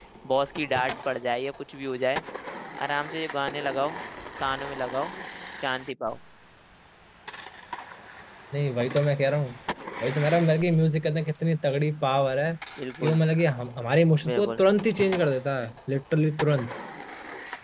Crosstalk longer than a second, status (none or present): none